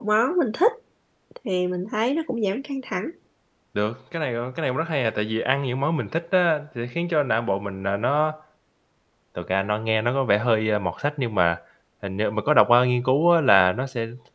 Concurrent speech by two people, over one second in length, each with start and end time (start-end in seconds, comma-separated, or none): none